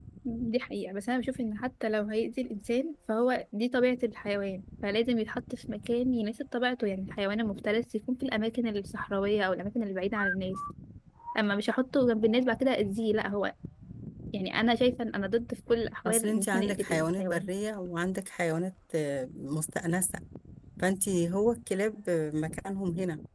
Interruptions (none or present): present